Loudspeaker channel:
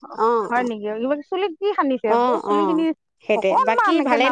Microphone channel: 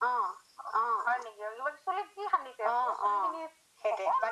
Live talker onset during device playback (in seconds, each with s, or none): none